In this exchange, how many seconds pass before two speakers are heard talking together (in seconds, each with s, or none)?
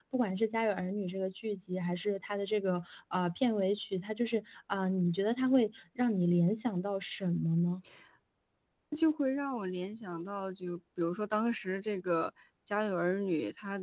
none